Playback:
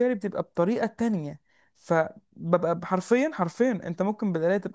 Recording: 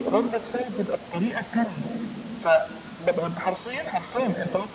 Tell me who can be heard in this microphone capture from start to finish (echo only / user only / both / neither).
echo only